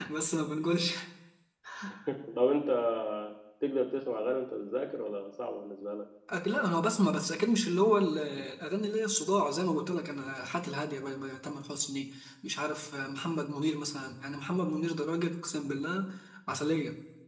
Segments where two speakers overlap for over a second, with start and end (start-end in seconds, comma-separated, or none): none